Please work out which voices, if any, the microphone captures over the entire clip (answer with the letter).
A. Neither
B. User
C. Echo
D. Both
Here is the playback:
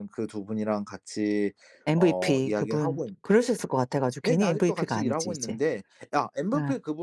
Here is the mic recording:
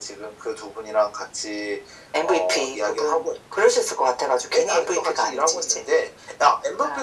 C